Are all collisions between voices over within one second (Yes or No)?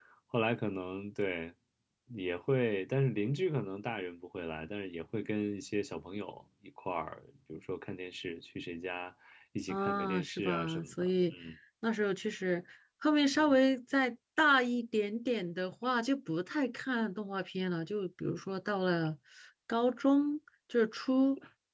No